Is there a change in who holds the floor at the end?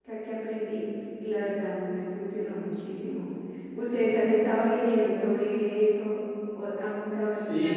Yes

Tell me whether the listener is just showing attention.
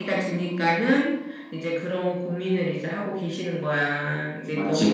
Yes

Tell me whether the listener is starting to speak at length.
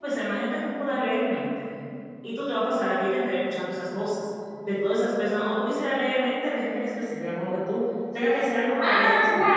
Yes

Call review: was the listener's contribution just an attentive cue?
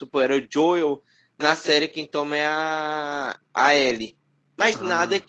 Yes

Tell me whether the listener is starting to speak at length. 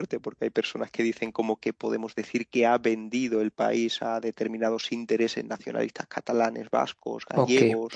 Yes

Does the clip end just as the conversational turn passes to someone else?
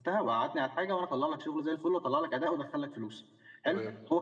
No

